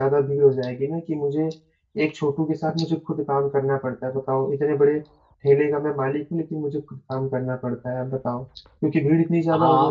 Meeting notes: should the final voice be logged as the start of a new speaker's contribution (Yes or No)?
Yes